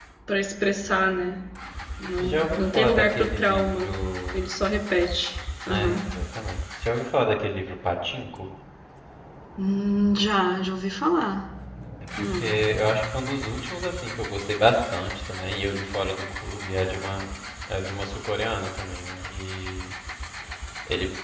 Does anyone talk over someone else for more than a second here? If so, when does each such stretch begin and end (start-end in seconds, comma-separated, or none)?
2.2-4.0